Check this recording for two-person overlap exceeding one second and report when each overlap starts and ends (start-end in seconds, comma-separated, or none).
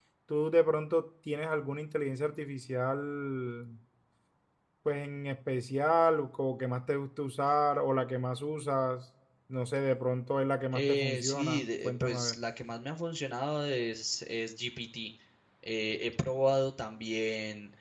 10.7-12.4